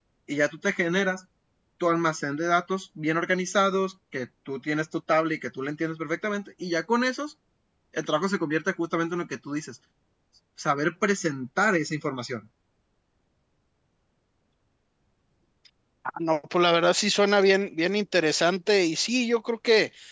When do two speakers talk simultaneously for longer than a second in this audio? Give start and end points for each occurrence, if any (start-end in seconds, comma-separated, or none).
none